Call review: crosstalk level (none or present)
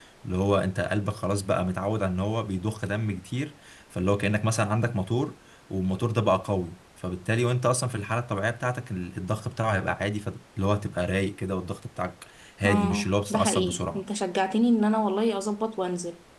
present